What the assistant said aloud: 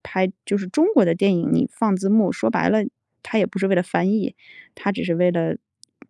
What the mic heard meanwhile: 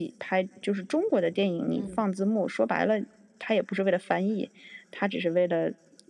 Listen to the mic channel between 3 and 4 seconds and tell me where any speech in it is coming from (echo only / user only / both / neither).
echo only